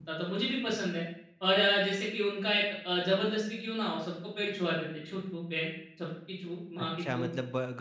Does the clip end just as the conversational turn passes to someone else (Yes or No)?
Yes